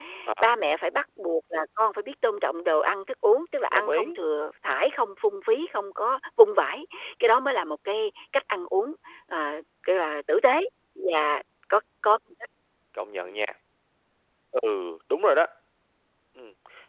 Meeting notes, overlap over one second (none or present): none